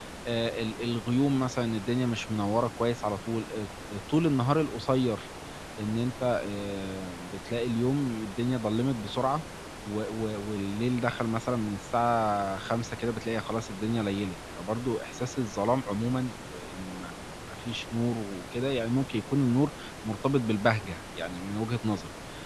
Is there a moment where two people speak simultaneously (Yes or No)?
No